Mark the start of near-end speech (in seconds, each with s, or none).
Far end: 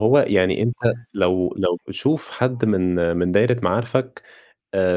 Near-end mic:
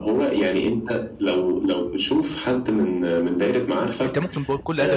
4.0 s